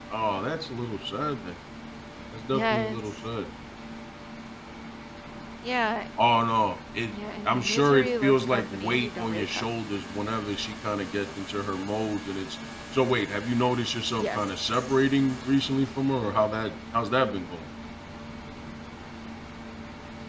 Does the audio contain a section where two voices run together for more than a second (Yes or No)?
Yes